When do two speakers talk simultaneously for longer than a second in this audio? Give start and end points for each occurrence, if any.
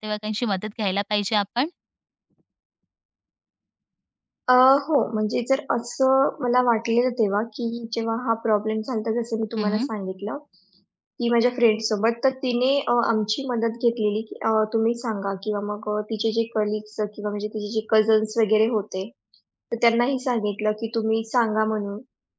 none

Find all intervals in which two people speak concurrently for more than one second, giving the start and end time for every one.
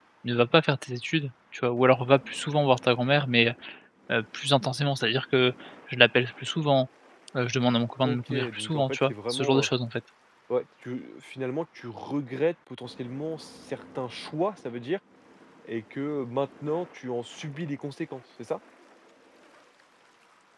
8.0-9.7

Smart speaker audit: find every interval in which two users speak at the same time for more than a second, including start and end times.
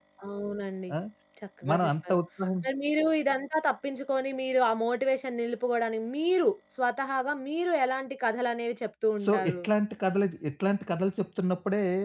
none

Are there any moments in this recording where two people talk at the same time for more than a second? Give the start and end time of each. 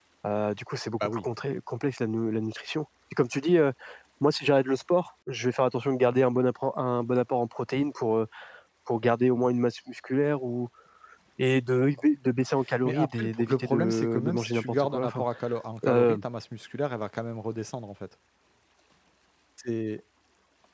12.8-15.2

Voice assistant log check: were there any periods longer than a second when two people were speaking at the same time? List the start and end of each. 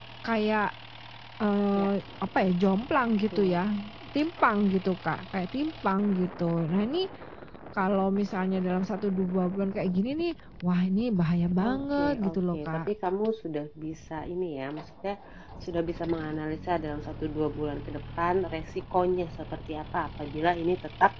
11.6-12.9

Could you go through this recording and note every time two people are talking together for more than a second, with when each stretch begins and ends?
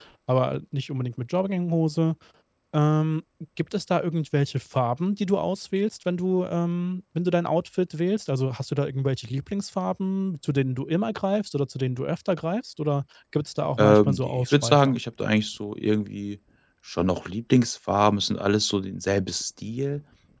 13.8-15.0

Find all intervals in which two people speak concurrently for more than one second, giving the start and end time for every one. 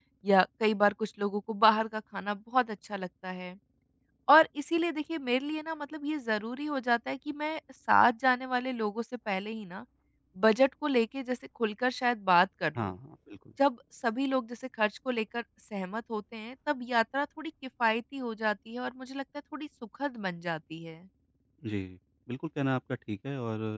none

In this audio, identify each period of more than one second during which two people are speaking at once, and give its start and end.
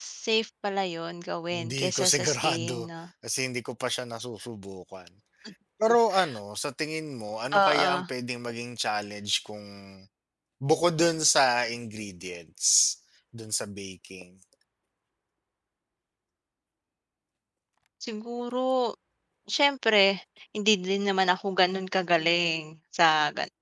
1.5-2.9

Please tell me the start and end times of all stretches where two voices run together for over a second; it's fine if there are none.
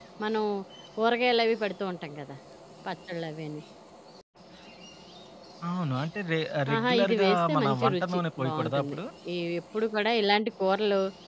6.7-9.0

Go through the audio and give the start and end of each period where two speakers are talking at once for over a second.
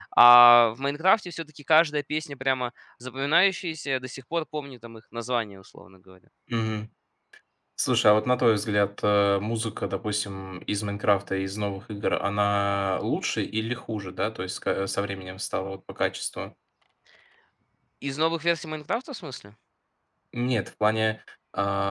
none

